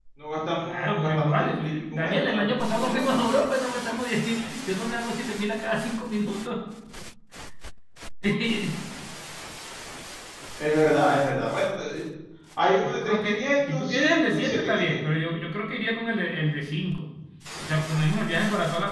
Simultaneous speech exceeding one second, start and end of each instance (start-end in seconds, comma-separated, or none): 0.6-3.2, 12.8-15.0